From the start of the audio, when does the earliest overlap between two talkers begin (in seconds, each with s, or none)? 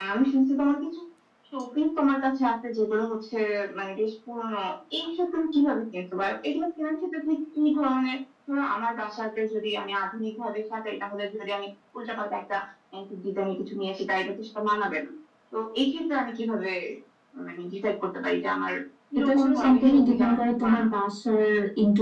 19.2 s